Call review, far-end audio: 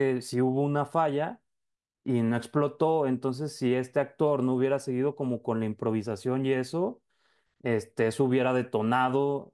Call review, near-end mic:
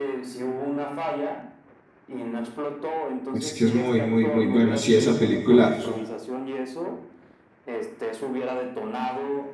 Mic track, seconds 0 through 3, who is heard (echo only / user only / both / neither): echo only